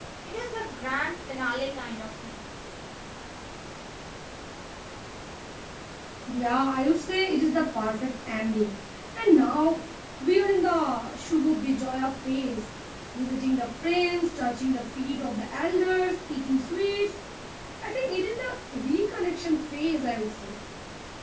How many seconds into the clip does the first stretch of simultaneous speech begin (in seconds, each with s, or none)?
none